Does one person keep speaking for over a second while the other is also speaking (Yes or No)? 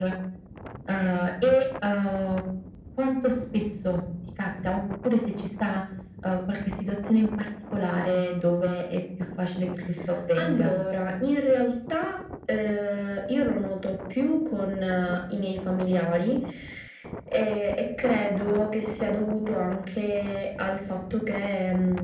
No